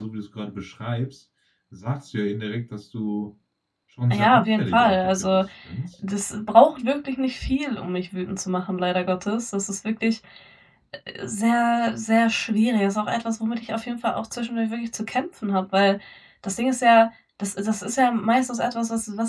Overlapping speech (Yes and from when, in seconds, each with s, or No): Yes, from 4.1 s